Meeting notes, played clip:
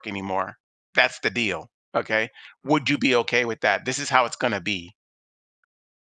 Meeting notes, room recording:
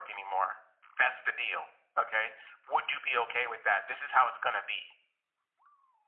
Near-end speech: none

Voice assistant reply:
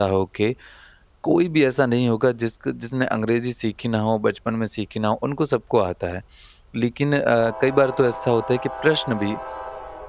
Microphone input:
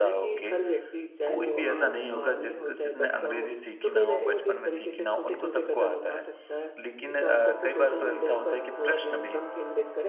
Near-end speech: present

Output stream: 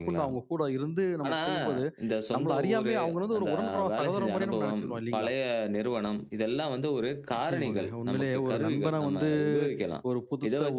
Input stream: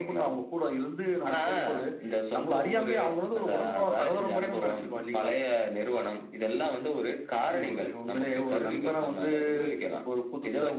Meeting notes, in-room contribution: none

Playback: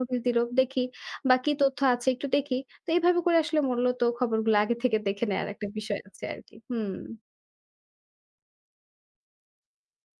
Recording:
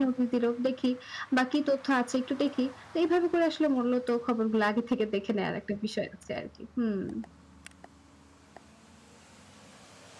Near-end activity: none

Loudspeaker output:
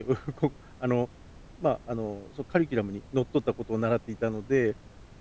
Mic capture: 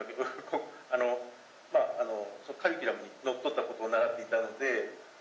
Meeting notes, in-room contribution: none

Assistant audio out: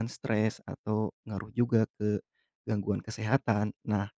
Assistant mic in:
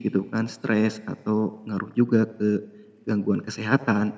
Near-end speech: none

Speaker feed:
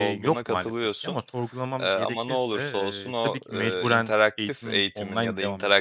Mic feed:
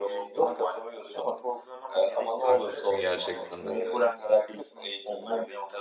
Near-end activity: present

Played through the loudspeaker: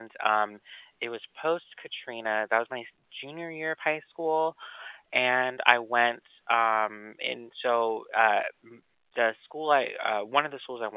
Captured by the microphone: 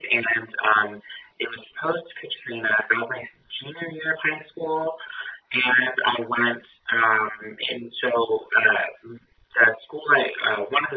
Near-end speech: none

